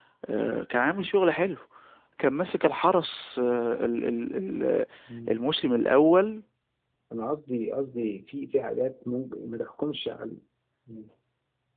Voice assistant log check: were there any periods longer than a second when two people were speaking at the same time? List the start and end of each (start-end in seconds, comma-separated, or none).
none